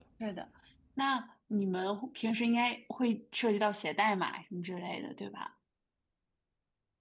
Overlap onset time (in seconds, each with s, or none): none